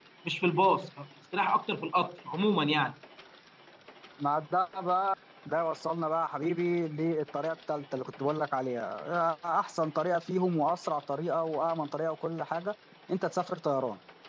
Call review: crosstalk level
none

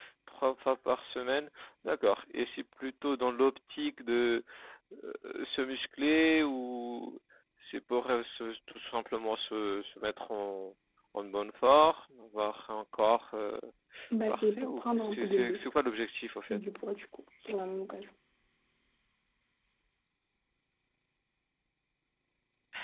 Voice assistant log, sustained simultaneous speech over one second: present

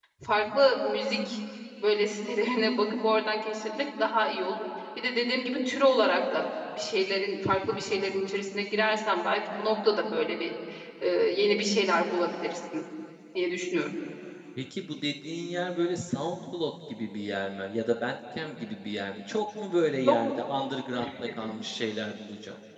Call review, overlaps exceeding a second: none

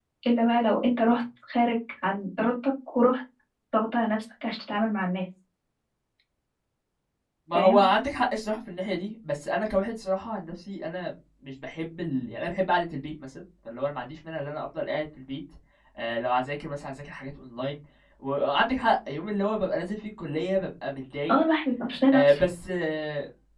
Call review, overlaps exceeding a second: none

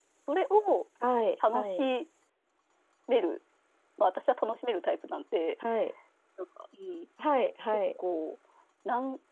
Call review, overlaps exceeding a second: none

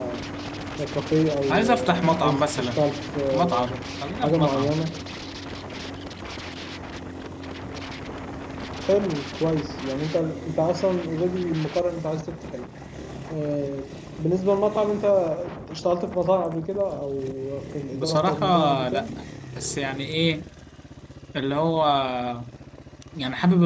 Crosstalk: present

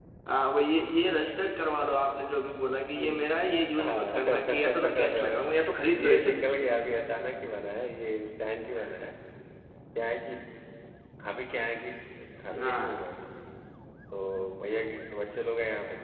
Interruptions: present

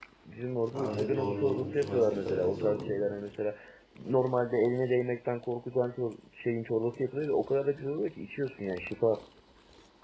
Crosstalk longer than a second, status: present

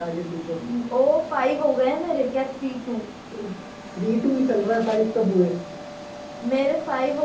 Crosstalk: none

